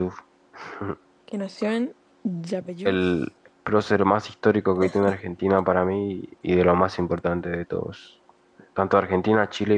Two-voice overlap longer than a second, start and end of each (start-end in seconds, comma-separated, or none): none